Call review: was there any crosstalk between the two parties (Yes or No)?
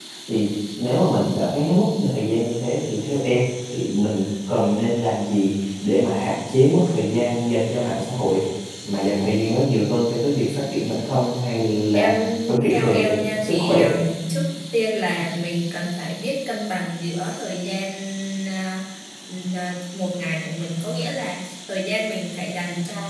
Yes